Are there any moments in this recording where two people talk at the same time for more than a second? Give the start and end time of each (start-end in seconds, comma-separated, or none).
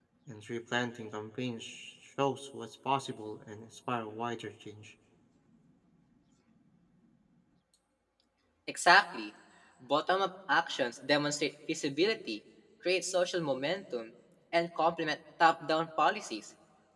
none